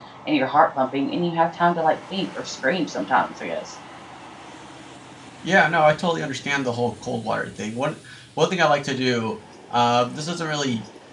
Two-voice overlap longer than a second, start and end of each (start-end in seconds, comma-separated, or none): none